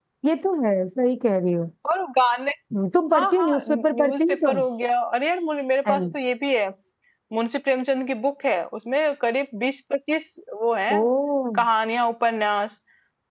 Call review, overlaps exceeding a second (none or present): present